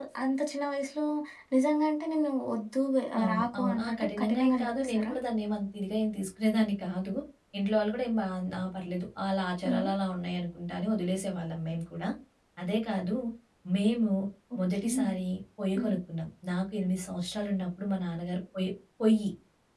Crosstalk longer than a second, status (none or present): present